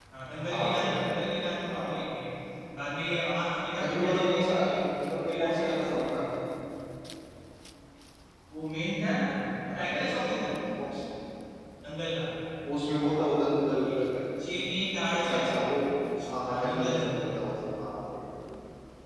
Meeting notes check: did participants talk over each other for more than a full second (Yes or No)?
Yes